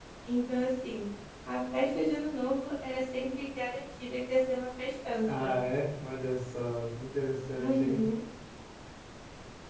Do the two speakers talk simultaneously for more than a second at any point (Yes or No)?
No